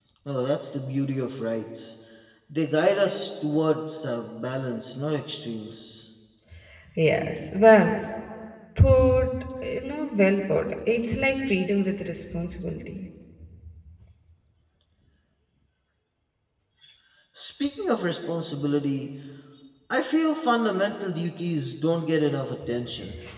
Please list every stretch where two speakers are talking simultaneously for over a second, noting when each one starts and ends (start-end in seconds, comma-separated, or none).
none